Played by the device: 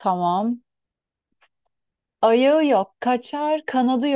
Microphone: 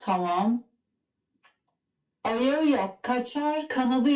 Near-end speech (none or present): none